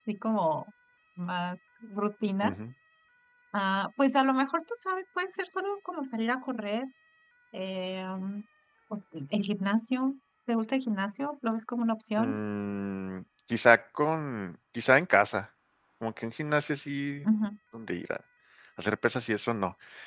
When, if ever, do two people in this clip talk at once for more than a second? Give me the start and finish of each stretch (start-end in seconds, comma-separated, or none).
none